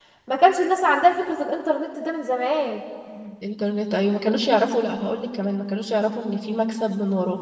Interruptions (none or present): none